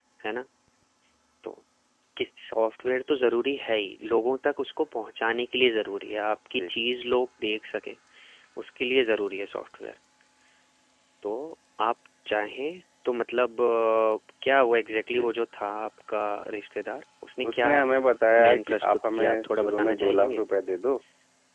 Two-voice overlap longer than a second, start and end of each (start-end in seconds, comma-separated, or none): 18.4-20.4